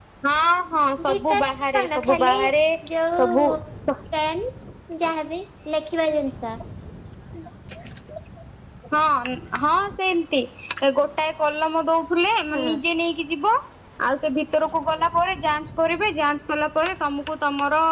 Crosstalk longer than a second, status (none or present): present